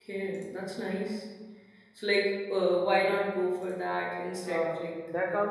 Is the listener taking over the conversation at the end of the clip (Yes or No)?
Yes